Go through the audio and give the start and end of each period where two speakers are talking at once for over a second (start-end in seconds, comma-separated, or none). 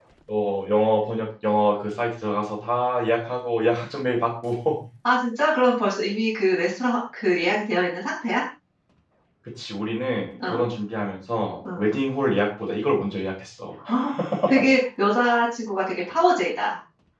none